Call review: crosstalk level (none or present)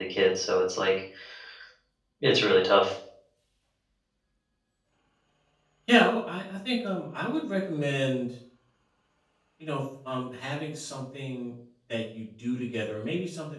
none